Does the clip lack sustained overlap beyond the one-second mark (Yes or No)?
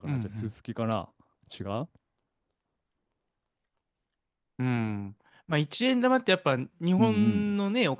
Yes